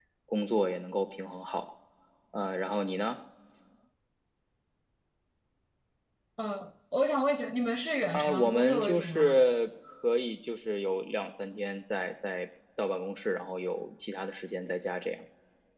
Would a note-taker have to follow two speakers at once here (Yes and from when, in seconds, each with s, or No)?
Yes, from 8.1 s